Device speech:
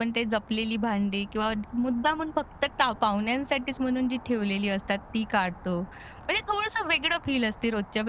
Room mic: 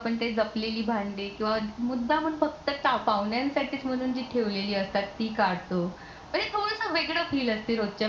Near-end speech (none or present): none